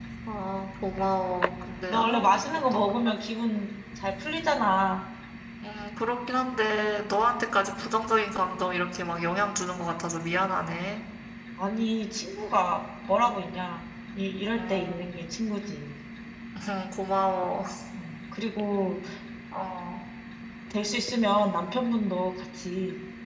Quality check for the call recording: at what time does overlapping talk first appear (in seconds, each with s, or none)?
1.9 s